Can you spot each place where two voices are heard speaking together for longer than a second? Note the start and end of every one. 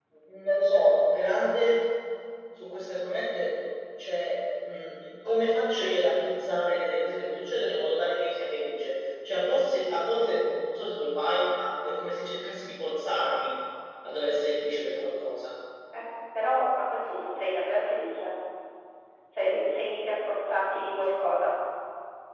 none

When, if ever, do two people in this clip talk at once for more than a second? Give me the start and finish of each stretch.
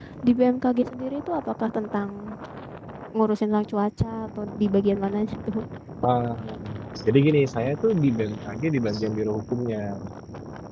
none

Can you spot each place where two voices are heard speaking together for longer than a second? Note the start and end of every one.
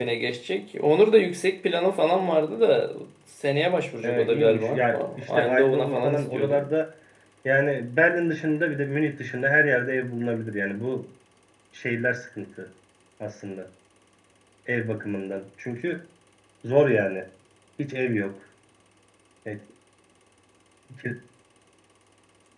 4.0-6.6

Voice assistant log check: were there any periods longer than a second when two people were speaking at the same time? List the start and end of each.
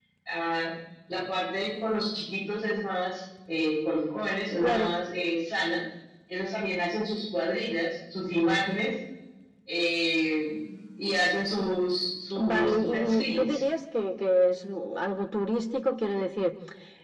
12.4-13.6

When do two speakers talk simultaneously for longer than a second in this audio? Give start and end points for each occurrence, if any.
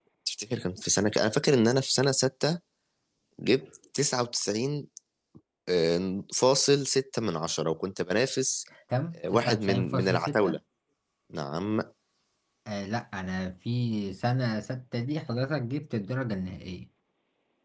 9.2-10.6

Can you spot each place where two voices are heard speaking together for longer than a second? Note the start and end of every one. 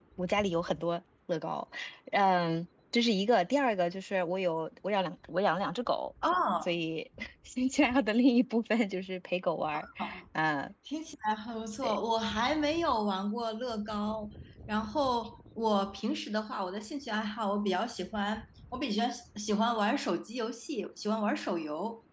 none

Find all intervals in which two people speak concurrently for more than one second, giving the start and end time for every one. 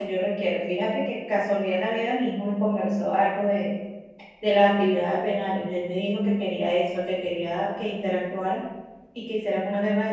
none

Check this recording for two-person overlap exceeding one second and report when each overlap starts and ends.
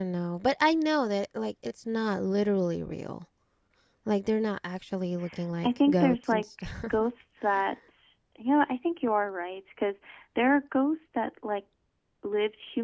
5.6-7.0

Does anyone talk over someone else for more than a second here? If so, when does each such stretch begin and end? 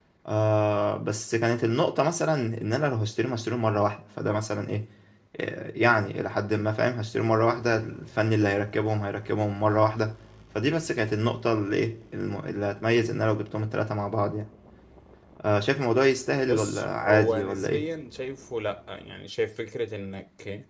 16.4-17.8

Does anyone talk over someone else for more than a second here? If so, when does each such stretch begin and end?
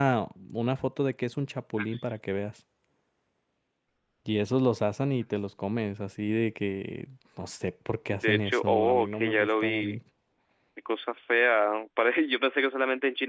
8.2-10.0

